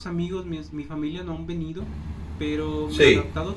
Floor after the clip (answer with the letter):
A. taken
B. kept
B